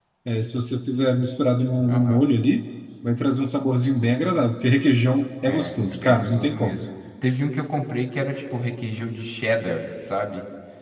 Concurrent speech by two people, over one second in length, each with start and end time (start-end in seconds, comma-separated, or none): 5.5-6.8